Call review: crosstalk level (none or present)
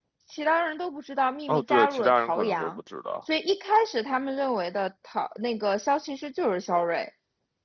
present